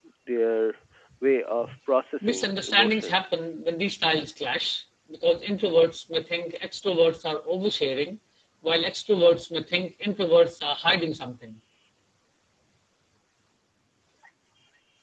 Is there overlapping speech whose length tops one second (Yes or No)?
Yes